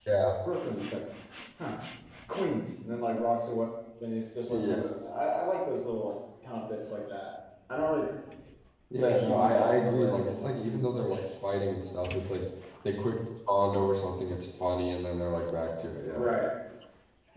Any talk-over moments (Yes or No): Yes